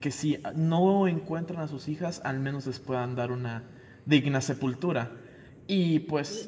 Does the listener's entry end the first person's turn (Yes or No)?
Yes